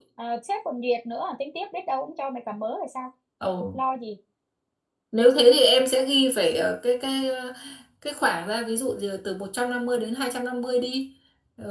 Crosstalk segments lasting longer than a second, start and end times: none

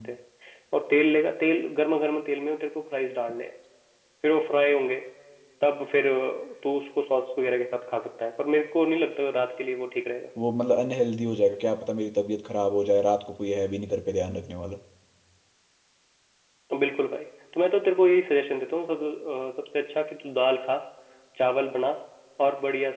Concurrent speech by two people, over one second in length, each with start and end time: none

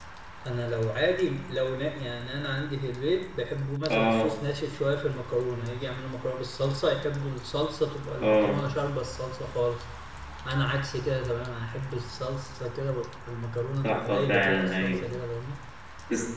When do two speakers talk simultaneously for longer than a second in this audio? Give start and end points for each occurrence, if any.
13.8-15.1

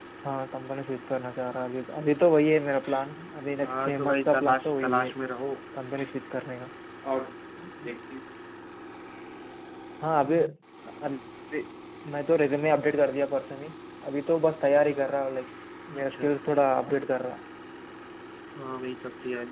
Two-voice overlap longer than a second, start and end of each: 3.6-5.1

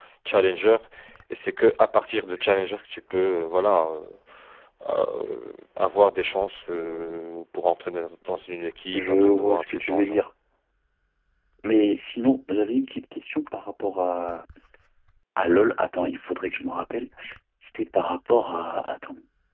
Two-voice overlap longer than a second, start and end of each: 8.9-10.2

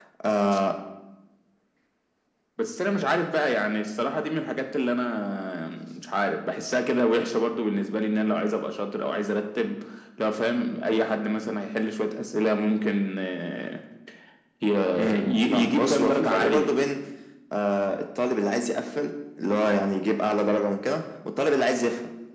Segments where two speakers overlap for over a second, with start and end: 15.2-16.7

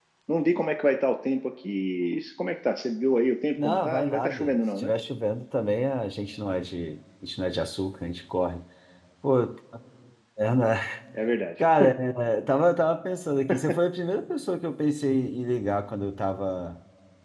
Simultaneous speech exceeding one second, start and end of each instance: 3.6-4.9

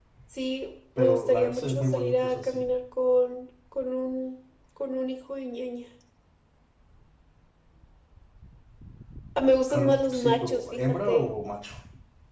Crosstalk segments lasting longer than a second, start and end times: 1.0-2.6, 9.7-11.3

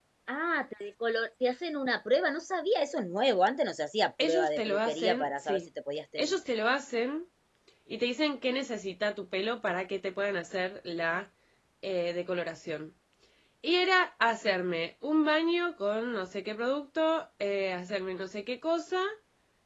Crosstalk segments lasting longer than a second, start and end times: 4.2-5.6

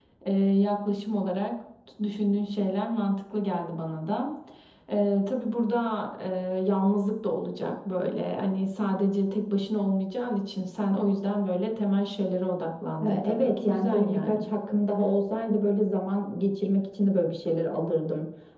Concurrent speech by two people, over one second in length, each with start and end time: 13.0-14.4

